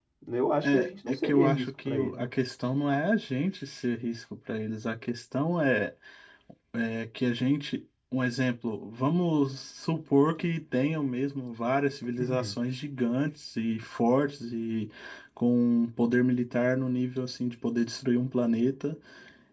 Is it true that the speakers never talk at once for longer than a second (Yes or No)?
No